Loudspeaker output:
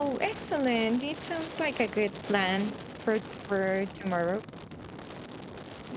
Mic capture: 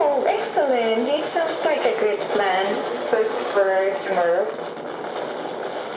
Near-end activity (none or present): none